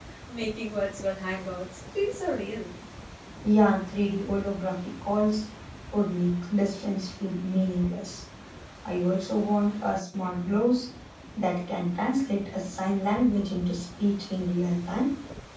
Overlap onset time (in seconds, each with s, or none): none